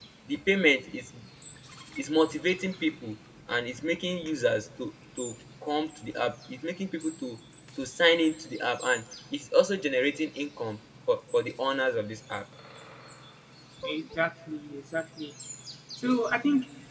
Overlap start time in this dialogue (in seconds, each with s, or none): none